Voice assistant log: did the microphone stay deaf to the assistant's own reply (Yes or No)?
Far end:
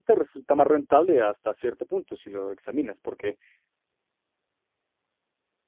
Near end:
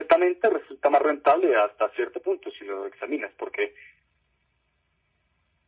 No